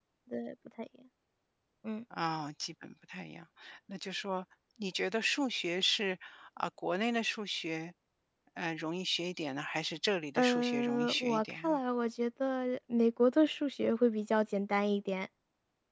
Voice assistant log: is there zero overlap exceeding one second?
No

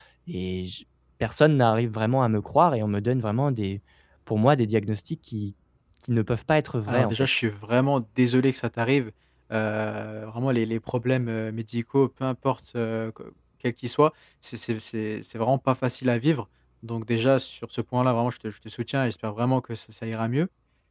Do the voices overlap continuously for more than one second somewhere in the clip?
No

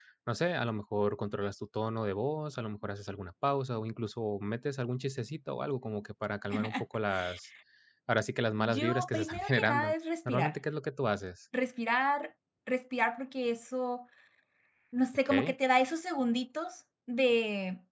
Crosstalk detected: Yes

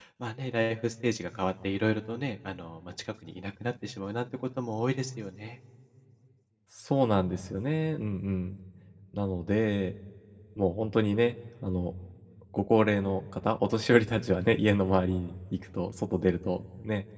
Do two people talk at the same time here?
No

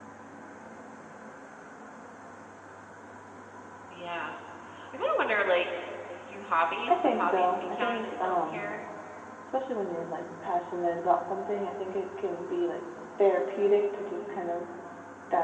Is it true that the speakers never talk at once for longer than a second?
No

